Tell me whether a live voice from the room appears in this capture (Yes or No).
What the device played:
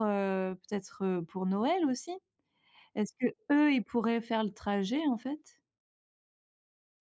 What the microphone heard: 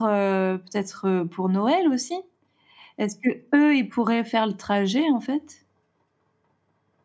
No